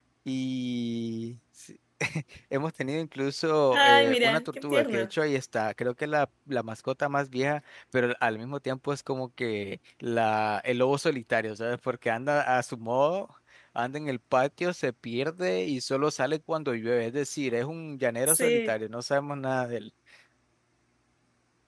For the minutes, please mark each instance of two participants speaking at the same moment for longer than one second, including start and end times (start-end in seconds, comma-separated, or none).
3.7-5.1